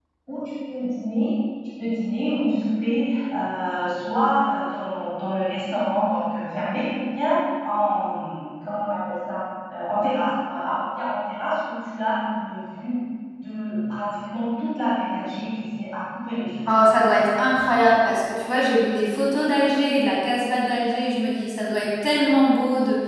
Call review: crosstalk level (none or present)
none